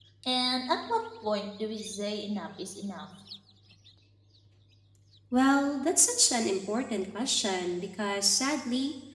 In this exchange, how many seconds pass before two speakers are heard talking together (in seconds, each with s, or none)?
none